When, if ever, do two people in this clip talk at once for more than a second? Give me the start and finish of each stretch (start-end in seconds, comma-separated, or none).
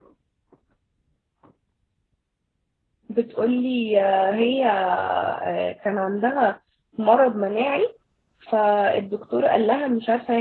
none